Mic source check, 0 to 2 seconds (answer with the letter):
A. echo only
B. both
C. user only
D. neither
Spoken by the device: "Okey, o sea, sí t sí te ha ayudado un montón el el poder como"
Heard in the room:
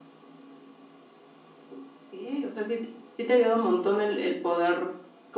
D